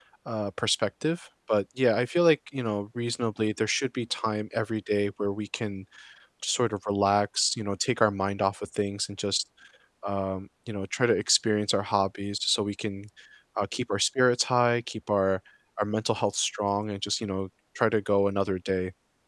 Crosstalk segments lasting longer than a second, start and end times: none

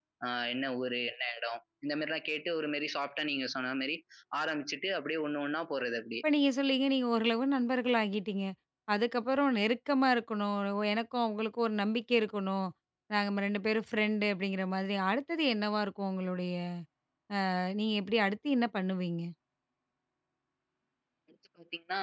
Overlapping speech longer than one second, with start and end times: none

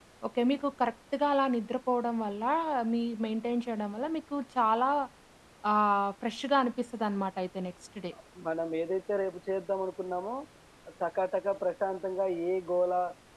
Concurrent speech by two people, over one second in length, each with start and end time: none

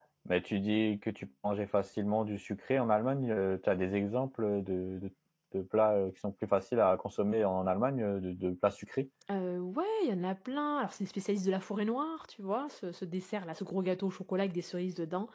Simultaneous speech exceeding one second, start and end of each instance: none

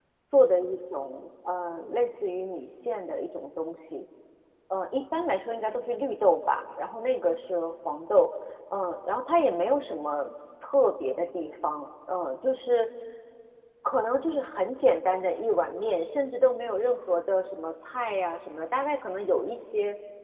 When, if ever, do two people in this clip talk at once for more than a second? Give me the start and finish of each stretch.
none

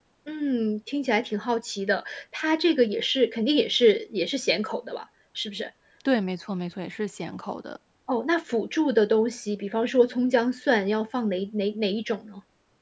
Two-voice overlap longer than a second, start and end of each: none

